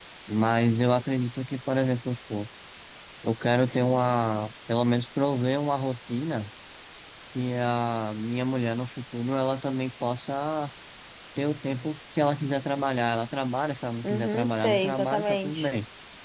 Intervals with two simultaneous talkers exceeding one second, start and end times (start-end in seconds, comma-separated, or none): 14.0-15.7